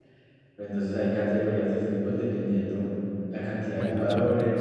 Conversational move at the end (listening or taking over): listening